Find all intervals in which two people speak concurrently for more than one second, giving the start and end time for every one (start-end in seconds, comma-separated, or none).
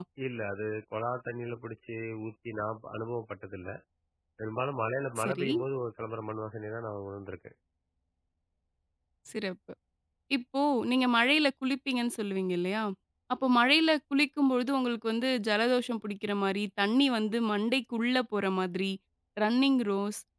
none